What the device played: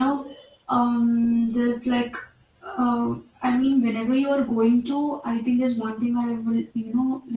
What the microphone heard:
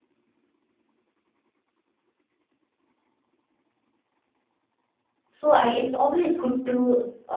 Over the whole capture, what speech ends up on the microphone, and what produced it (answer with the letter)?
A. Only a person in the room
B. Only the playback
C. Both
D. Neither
A